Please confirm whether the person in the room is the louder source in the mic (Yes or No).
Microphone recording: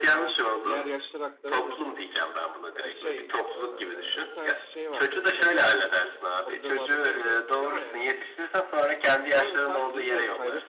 No